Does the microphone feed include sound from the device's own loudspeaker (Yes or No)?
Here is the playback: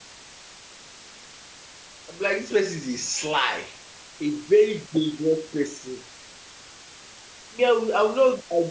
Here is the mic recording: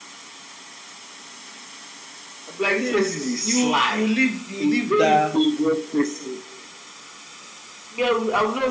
Yes